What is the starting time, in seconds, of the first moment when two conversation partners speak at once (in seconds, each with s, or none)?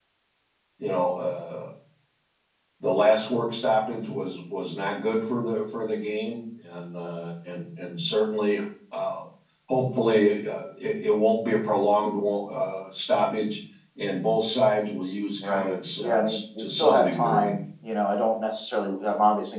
15.4 s